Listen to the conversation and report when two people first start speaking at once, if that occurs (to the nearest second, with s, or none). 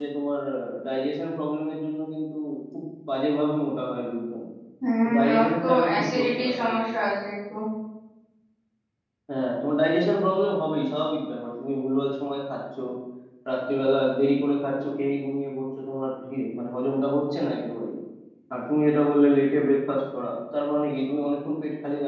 5 s